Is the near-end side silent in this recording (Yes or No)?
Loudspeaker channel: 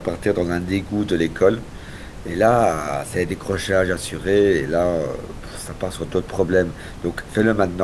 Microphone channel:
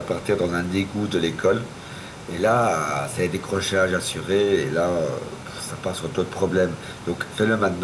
Yes